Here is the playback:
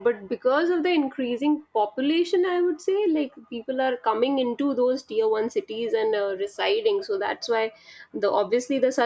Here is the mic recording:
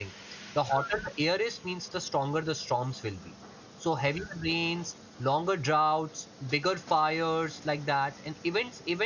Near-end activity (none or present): present